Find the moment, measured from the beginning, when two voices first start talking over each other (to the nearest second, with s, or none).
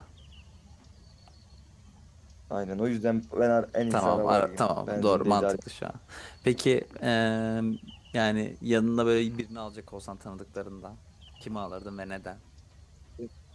4 s